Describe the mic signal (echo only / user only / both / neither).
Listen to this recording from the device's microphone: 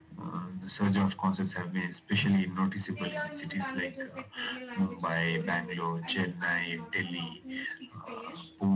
both